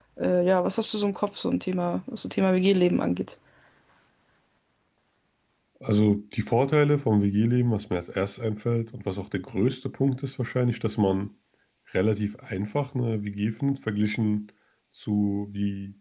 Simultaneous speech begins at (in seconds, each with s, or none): none